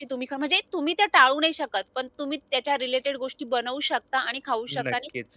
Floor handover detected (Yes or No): No